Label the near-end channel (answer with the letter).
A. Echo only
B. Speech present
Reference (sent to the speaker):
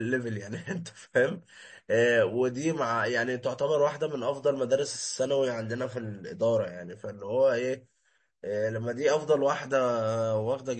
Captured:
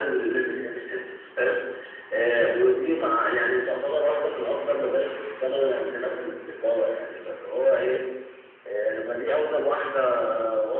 A